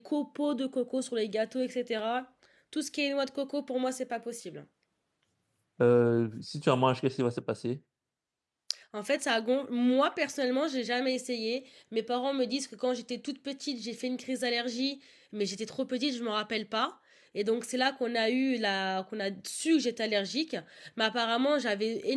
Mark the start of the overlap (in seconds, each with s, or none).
none